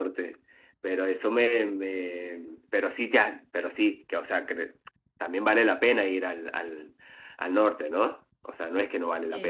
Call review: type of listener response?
taking over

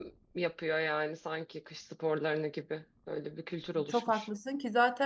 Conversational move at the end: taking over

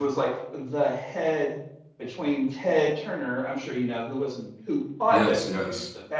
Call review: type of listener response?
listening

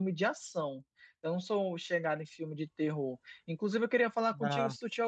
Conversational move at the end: listening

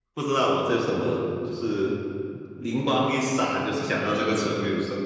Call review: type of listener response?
listening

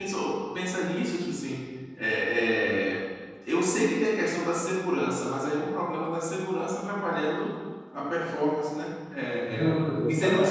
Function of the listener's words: listening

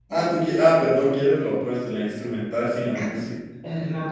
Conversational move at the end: taking over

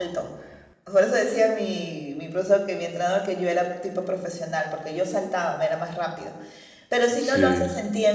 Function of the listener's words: listening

